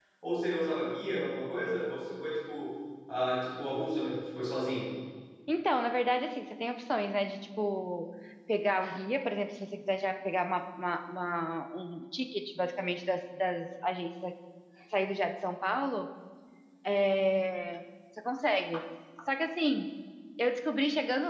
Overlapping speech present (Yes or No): No